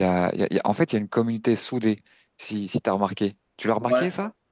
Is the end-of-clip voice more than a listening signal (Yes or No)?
Yes